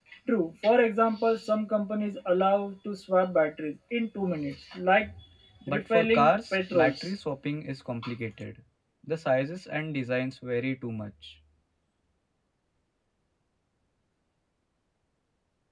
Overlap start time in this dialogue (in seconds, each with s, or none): 5.7 s